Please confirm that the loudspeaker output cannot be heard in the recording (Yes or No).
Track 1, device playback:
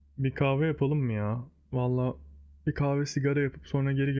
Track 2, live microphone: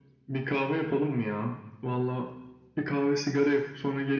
No